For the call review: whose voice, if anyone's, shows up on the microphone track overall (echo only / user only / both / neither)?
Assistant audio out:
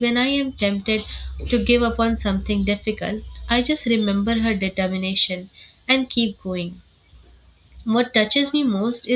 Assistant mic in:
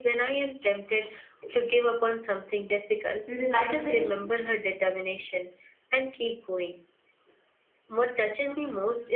both